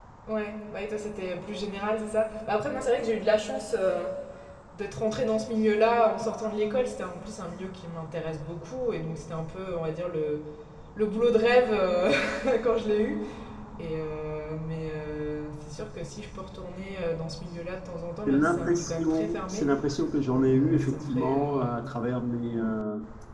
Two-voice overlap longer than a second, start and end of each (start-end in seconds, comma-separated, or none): 18.3-19.7, 20.3-21.5